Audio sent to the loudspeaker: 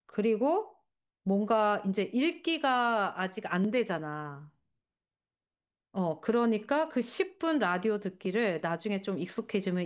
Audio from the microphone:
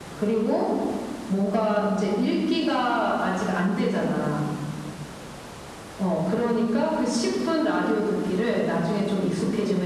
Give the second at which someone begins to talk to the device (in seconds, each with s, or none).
none